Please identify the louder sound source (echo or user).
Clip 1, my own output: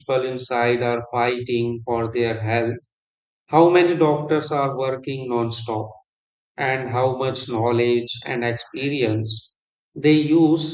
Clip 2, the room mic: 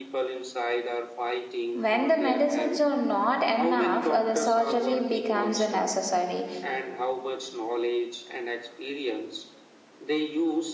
user